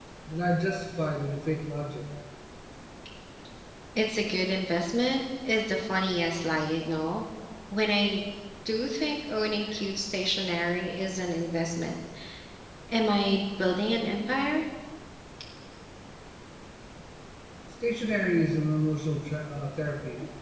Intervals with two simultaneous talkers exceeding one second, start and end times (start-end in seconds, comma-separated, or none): none